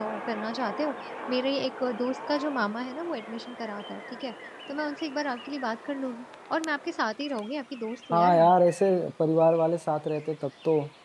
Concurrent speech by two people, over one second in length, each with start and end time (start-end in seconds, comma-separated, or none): none